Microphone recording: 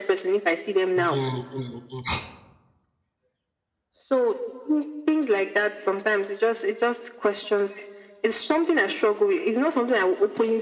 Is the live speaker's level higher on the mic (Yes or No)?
No